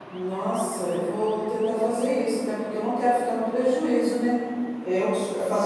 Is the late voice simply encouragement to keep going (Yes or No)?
Yes